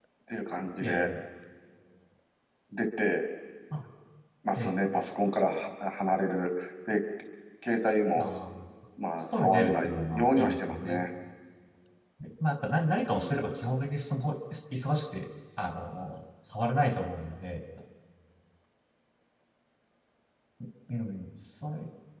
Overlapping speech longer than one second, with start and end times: 9.4-11.1

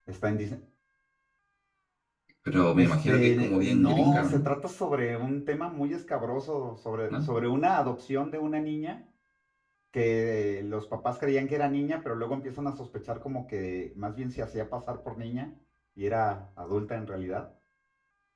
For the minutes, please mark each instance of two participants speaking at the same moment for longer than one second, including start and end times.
2.8-4.5

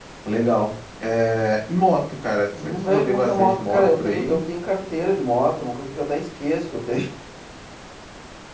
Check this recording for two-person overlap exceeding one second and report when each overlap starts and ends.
2.6-4.4

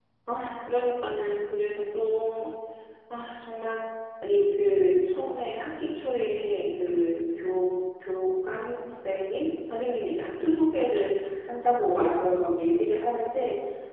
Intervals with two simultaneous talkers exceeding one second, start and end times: none

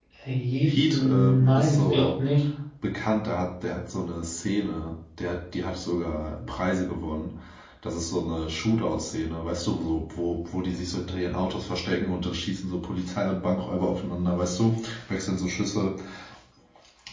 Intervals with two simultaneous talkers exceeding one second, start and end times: 0.7-2.1

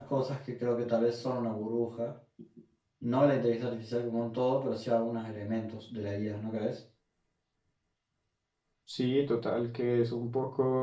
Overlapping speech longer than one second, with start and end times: none

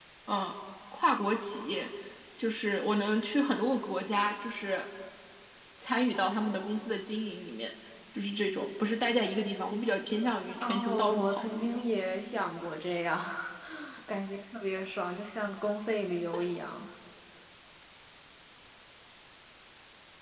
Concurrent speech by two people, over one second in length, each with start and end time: 10.6-11.8

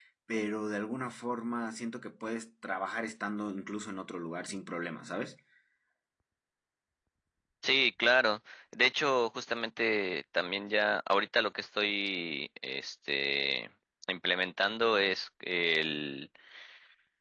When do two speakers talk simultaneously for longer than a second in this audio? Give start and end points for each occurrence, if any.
none

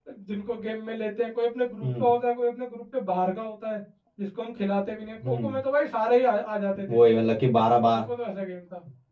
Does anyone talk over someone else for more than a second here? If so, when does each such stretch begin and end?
none

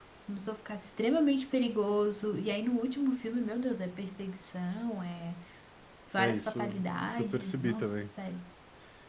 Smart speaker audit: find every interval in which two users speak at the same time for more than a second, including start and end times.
6.2-8.0

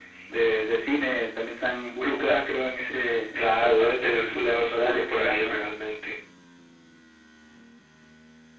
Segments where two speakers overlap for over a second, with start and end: 3.4-5.6

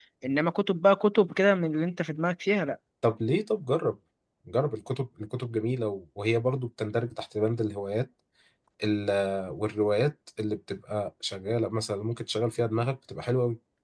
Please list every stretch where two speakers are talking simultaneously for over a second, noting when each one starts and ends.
none

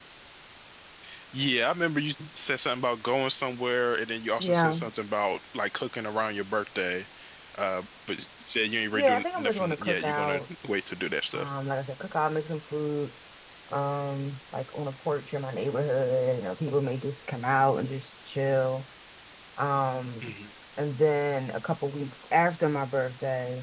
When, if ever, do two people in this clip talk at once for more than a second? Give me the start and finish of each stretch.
8.9-10.4

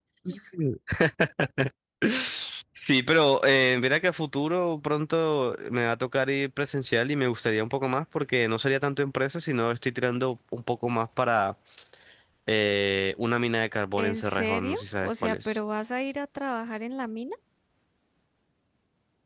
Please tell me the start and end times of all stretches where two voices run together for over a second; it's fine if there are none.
14.0-15.6

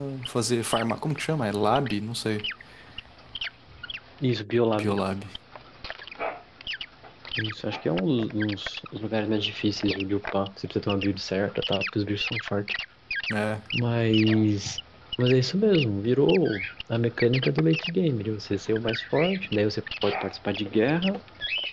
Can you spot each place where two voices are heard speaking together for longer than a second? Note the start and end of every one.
none

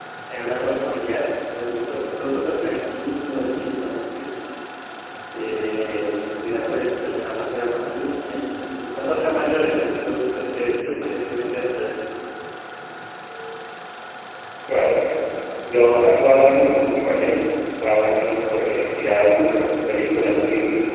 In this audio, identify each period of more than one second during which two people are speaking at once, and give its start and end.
none

